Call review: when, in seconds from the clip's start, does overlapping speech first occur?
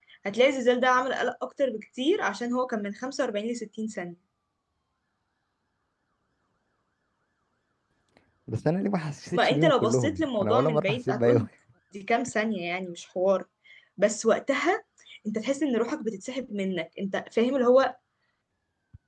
9.3 s

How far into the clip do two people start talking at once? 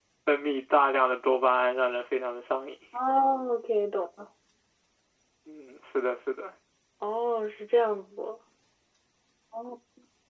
none

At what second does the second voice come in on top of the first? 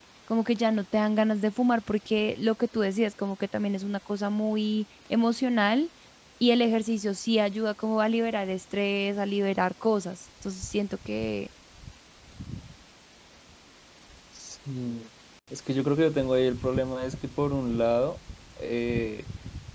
none

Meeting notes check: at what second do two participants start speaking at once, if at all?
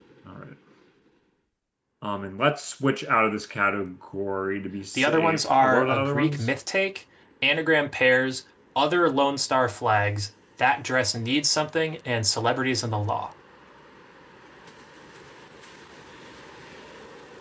4.9 s

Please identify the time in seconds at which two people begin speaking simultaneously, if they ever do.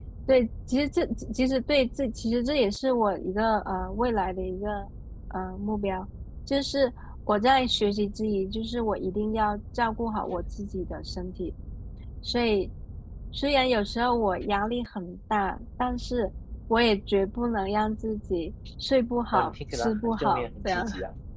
19.3 s

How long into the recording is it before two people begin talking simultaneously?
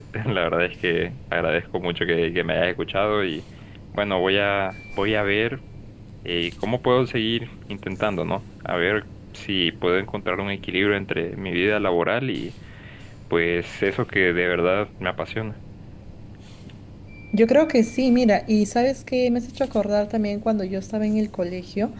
none

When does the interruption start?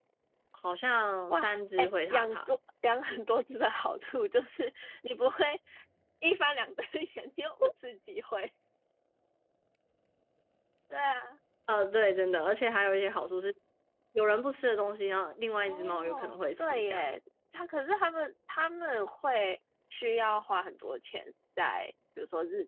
1.3 s

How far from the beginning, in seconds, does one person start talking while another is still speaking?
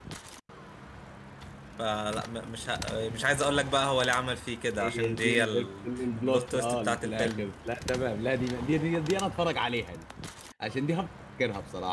4.8 s

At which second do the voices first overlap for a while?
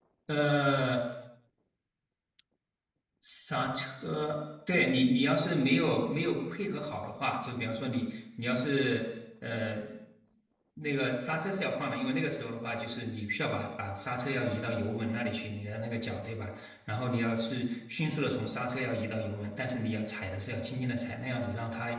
none

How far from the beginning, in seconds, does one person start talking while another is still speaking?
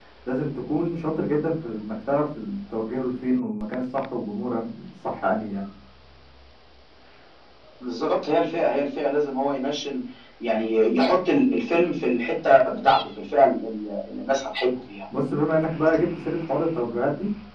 none

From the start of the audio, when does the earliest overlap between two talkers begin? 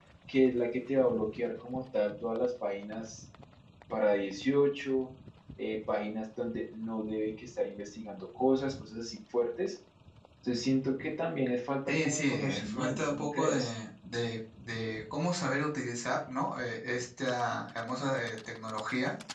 11.9 s

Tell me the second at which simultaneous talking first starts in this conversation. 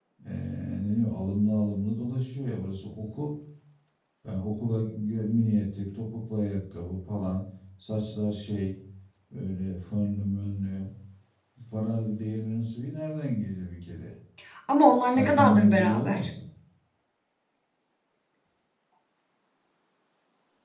15.1 s

